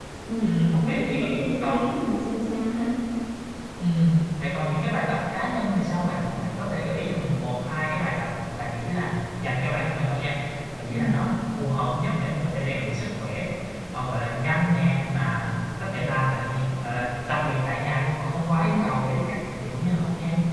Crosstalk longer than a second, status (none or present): present